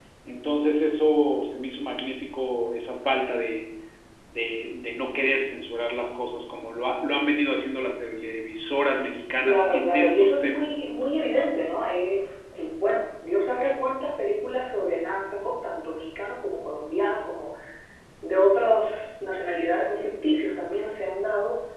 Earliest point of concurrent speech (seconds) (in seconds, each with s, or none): 9.4 s